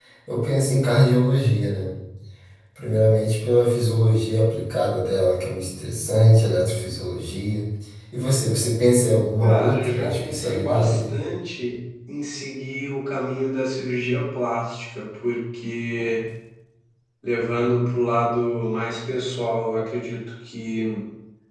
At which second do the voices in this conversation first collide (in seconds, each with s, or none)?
9.4 s